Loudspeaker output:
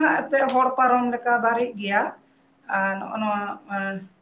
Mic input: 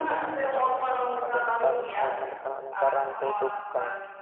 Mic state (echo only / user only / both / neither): both